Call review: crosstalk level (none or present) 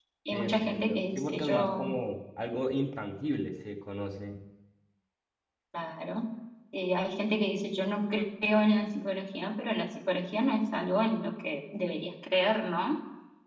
present